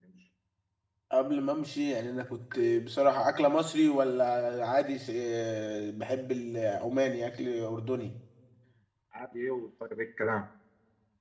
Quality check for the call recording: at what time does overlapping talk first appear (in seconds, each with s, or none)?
none